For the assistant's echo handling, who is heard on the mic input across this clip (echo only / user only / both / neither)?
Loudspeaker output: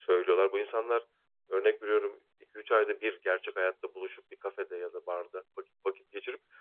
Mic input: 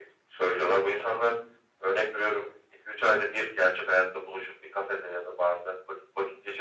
echo only